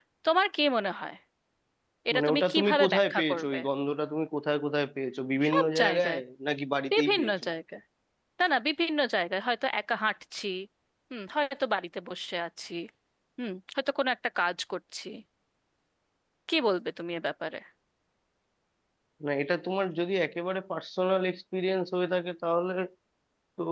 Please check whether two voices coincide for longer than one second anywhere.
Yes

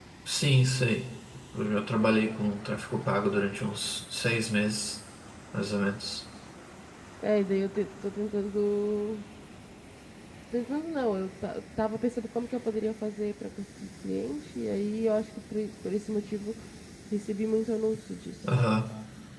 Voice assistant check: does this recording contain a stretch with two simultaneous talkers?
No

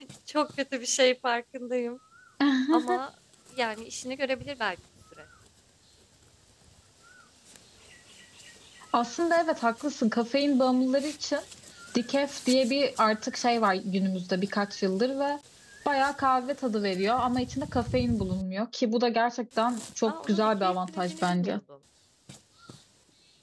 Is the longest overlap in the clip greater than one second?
Yes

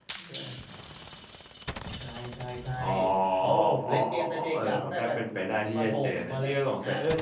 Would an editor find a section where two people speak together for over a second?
Yes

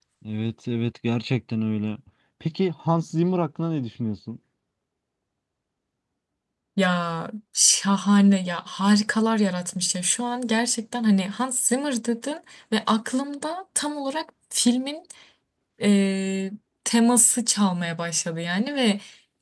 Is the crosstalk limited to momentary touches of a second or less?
Yes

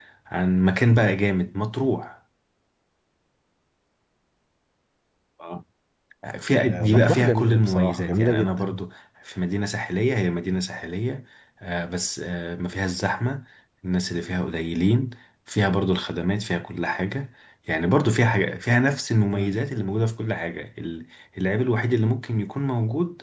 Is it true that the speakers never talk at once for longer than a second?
No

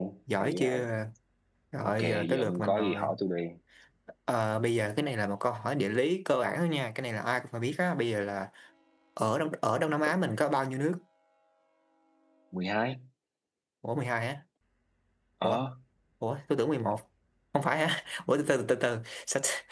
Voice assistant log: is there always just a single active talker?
No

